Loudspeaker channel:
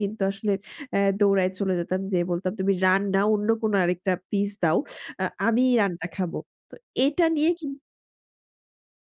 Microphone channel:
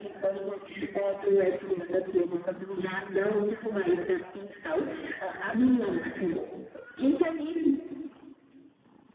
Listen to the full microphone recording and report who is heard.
echo only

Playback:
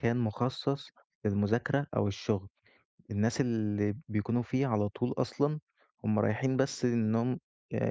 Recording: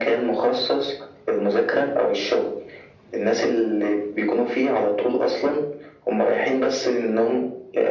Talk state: echo only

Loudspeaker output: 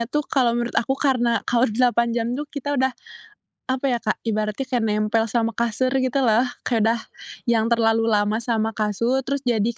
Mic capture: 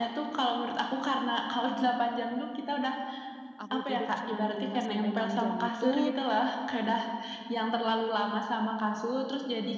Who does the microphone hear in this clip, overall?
both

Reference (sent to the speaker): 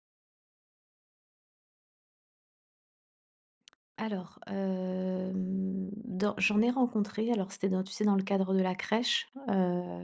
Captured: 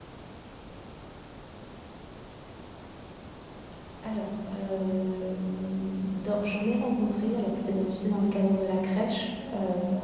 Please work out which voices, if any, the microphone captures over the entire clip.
echo only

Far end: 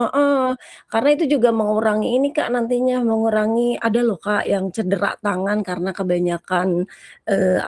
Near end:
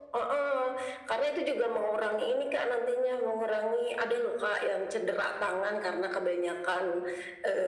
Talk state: echo only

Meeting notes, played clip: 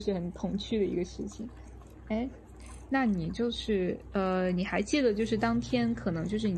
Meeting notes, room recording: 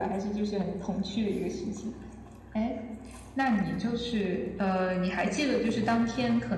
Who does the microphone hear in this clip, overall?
echo only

